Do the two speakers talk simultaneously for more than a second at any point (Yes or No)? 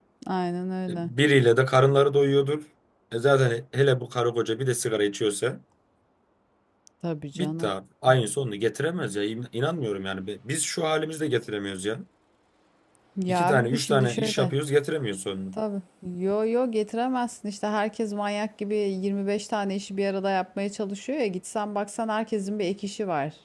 Yes